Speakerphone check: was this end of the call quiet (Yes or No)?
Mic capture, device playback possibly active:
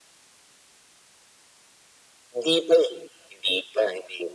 Yes